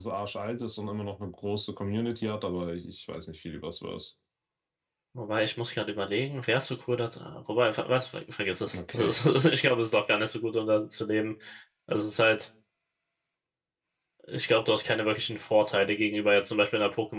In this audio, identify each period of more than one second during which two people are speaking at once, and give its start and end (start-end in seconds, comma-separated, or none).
none